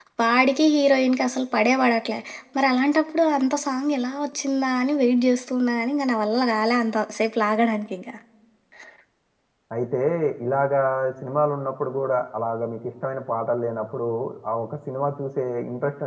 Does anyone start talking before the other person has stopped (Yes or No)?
No